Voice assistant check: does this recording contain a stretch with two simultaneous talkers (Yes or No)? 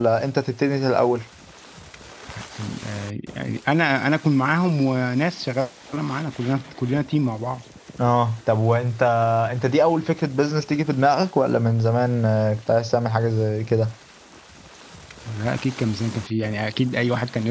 No